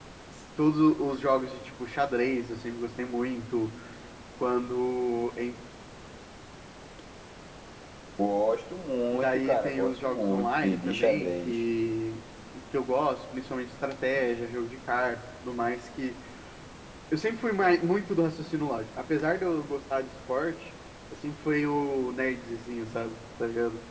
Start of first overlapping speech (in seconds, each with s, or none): 9.1 s